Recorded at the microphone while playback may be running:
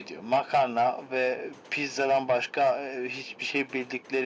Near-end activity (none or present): none